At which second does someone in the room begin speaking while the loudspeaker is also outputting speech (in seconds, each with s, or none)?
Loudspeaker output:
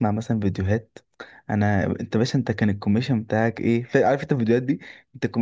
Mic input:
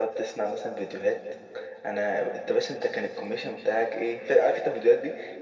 none